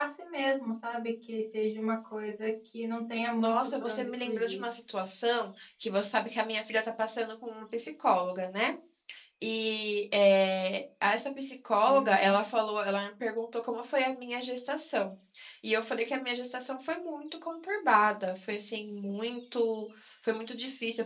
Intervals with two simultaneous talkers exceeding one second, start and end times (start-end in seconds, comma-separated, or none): 3.4-4.7